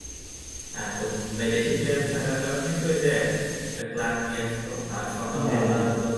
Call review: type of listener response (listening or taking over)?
listening